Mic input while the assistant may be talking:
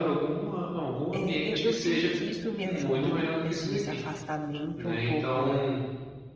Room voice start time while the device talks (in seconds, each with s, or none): 1.1 s